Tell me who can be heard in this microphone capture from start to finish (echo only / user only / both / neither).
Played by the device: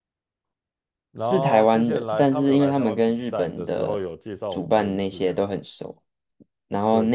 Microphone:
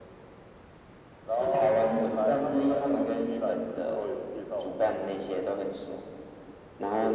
echo only